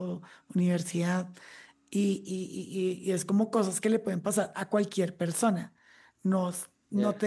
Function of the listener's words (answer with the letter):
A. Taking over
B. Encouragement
B